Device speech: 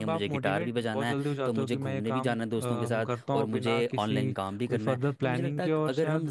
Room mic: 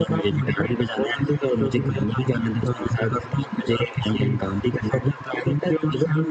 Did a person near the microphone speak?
No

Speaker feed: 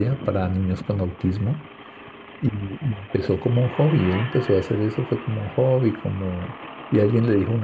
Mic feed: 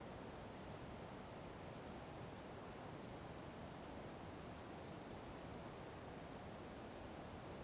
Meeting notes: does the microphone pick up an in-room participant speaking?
No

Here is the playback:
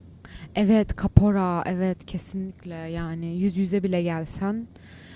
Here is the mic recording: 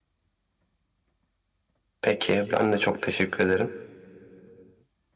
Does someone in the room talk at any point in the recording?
Yes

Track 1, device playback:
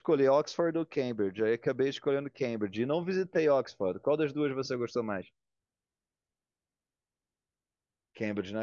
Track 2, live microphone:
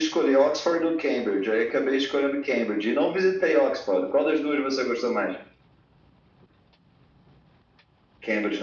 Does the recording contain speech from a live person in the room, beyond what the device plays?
No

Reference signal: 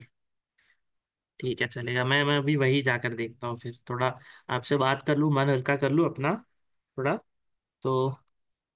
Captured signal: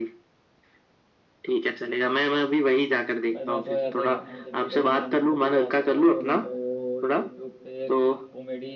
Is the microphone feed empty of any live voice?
No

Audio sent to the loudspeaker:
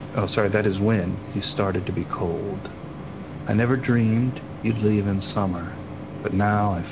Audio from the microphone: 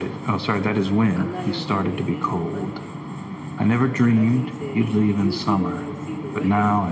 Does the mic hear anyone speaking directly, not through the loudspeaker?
Yes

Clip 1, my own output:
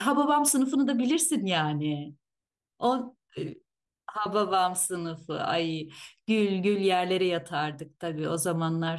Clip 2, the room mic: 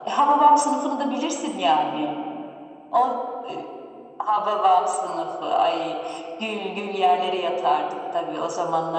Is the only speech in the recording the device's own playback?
Yes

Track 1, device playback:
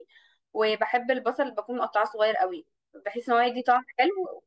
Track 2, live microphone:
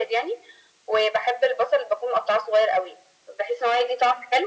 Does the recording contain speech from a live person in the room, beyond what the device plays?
No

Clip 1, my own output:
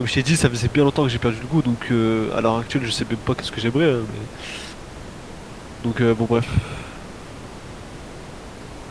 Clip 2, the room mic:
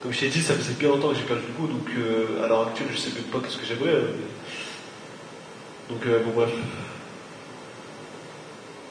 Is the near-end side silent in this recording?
Yes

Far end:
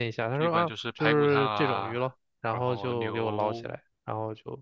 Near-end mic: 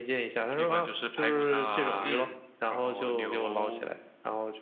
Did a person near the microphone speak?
Yes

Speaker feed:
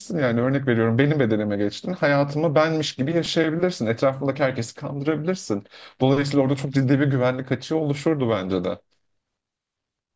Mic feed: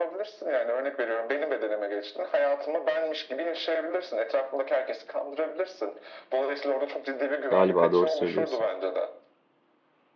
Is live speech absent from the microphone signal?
No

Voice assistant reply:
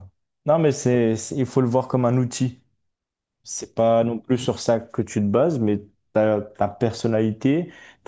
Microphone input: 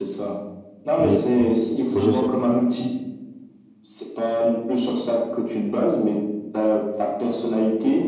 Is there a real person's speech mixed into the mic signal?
Yes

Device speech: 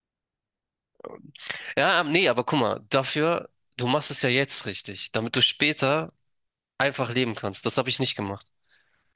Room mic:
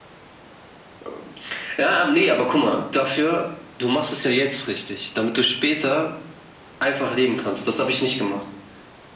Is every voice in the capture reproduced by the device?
Yes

